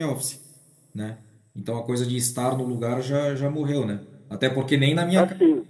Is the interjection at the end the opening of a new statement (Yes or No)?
No